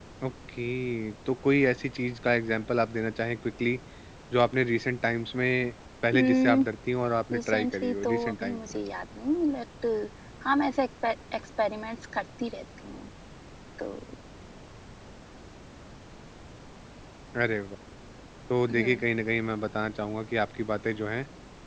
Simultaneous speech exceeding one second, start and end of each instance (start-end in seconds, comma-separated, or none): 7.3-8.8